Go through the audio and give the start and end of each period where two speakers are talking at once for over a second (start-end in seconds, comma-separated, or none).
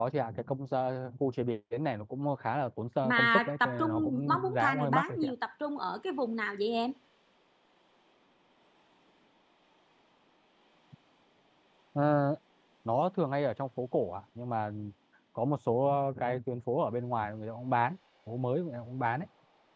3.0-5.3